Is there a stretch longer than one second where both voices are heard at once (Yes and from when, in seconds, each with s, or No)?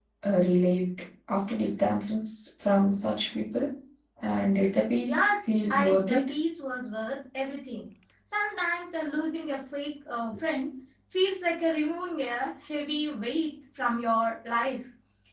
Yes, from 5.0 s